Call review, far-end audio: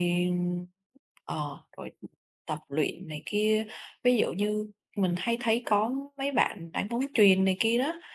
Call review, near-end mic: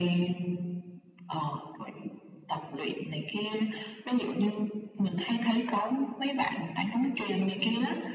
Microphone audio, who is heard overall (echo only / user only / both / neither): echo only